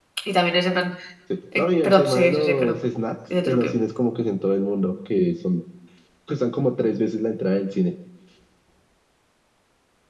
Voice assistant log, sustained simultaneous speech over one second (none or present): present